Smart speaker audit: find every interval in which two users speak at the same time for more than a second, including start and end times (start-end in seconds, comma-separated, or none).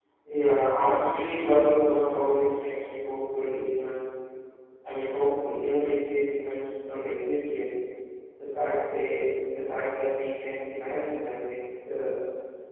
none